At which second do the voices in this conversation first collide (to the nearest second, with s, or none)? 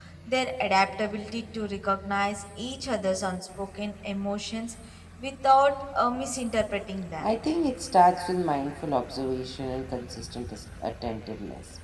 none